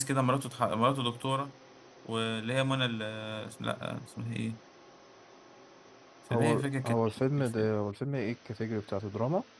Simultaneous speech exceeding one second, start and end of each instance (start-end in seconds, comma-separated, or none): 6.3-7.7